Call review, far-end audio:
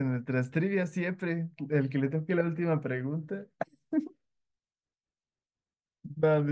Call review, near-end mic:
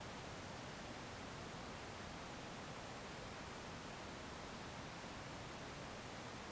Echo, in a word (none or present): none